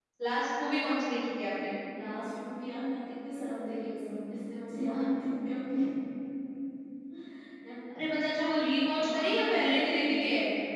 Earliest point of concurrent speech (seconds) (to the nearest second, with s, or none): 9 s